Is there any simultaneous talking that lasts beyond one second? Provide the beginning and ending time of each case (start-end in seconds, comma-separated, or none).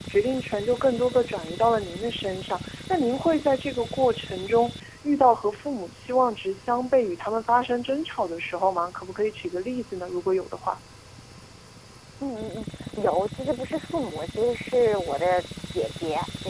none